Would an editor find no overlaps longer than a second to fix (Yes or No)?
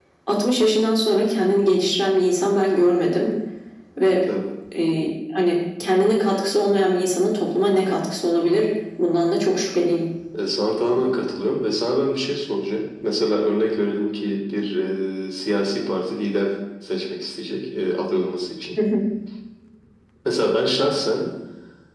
Yes